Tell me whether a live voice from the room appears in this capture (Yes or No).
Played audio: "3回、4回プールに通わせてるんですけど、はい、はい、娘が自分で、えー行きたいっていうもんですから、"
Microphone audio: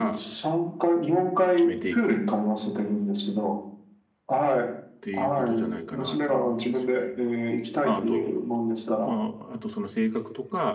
Yes